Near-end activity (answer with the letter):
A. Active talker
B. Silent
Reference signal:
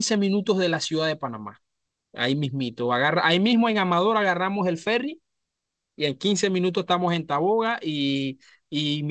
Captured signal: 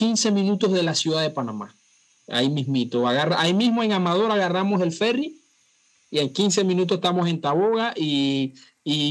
B